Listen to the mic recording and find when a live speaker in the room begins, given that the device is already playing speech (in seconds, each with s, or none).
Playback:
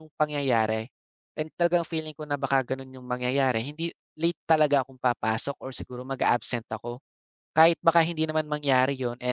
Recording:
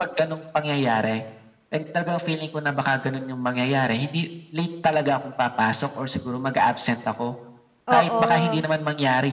7.9 s